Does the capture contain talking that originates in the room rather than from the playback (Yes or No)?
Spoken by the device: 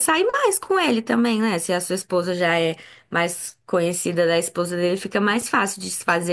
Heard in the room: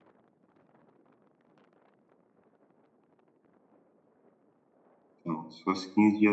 Yes